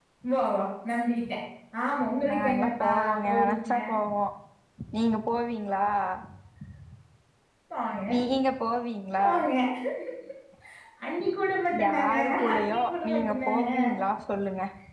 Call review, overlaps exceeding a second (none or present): present